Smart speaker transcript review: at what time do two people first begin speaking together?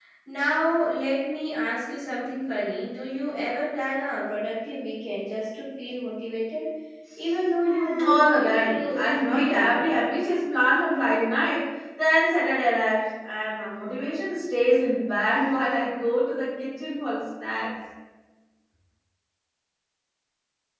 7.7 s

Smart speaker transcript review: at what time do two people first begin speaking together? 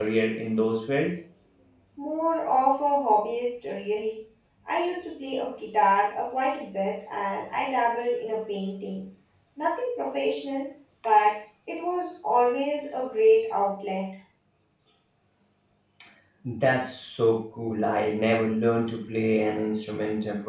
none

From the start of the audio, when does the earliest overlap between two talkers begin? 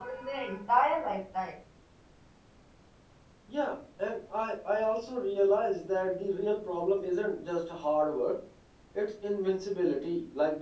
none

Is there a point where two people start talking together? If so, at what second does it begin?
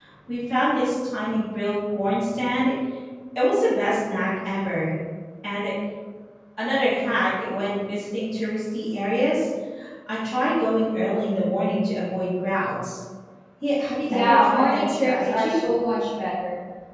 14.1 s

